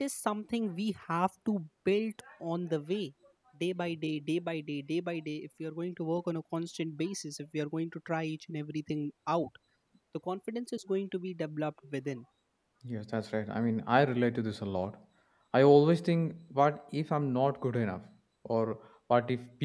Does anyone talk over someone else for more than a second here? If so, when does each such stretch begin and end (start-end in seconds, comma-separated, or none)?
none